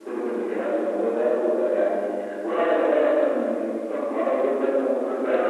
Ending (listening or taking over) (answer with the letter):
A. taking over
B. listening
A